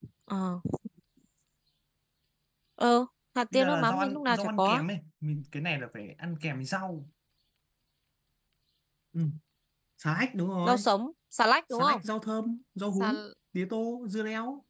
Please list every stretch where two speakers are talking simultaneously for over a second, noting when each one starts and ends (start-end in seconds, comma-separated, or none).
3.5-4.8